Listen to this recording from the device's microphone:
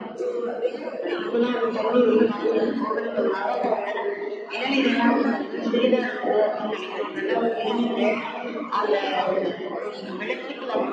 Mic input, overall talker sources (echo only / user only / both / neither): echo only